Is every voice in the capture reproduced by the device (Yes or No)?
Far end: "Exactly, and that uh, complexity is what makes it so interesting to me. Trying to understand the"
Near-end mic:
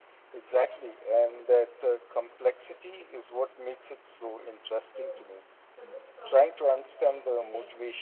No